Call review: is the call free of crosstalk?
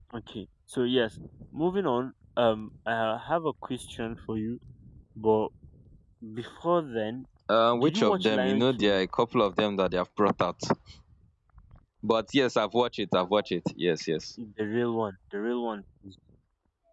No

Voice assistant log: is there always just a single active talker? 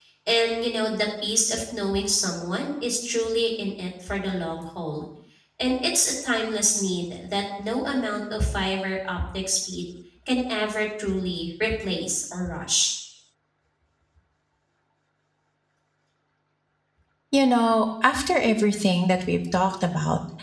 Yes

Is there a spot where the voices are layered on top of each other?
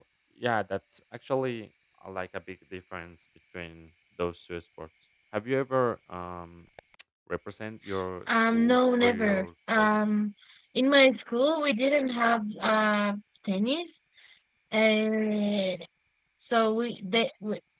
Yes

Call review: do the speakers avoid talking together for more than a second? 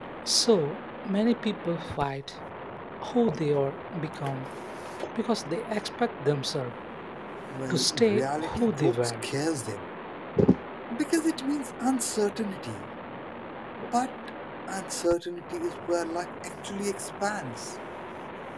No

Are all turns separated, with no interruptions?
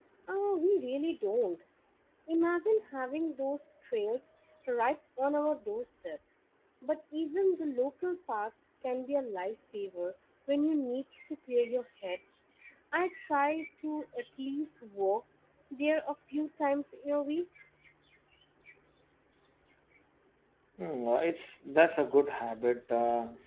Yes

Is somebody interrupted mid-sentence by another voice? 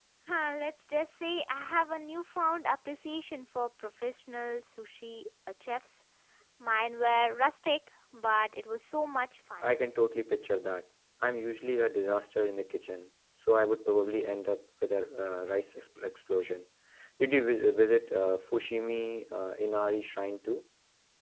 No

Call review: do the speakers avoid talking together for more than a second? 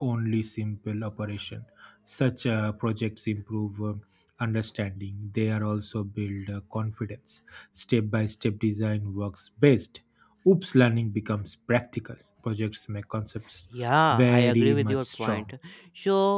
No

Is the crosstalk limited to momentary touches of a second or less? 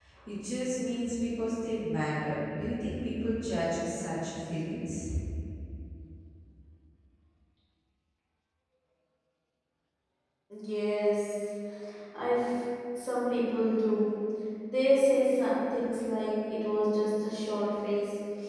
Yes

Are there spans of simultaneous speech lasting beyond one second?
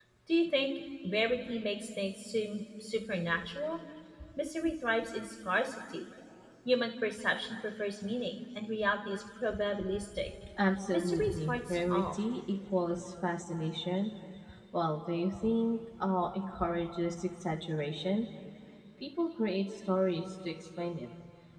Yes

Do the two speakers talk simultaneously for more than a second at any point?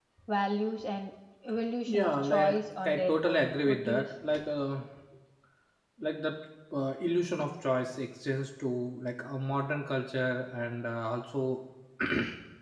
Yes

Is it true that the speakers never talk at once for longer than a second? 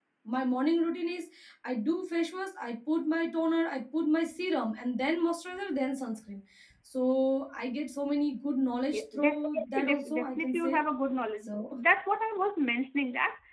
No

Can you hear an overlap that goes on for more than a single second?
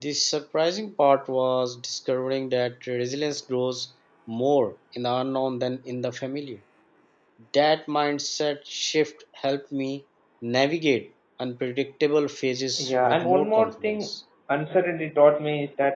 Yes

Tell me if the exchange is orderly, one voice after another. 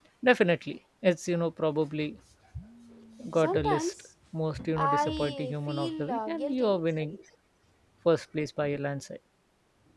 No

